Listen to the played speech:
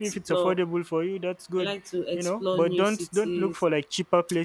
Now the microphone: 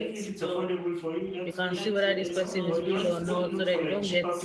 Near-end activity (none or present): present